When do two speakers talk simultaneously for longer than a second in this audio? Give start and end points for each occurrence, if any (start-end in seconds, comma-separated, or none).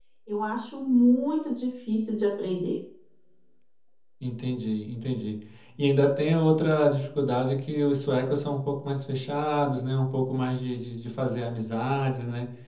none